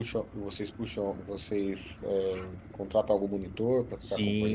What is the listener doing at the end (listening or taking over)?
taking over